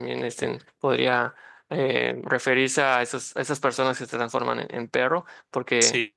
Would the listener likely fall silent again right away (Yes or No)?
No